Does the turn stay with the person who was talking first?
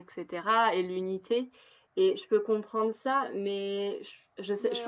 No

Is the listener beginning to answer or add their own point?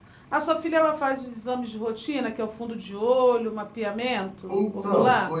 Yes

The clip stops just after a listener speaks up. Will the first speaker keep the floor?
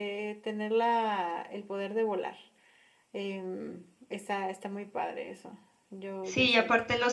No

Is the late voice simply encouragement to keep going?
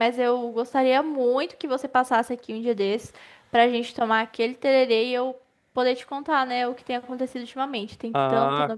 No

